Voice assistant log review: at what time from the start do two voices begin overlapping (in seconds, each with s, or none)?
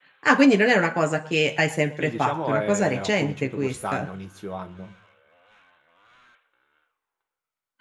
2.0 s